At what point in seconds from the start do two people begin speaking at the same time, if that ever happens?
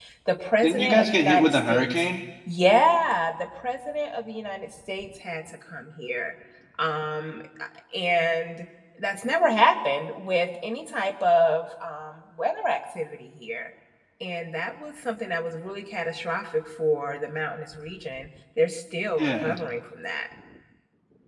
1 s

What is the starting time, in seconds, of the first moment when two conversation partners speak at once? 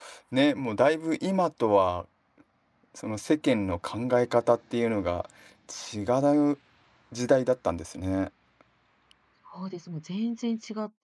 none

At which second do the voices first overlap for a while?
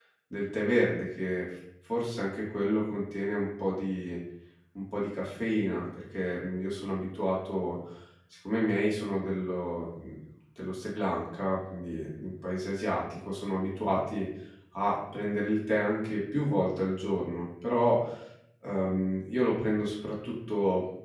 none

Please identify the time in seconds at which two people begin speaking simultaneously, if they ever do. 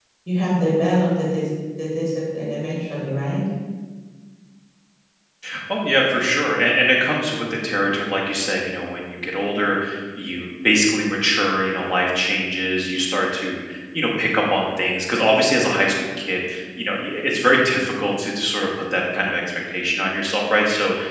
none

